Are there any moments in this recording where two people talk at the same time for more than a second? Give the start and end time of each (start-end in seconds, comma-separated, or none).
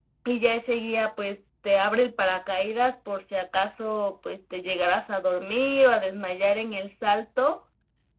none